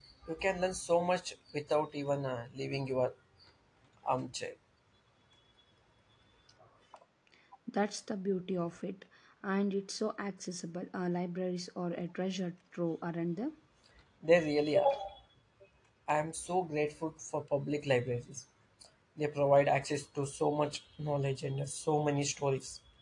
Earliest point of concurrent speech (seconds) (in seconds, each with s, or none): none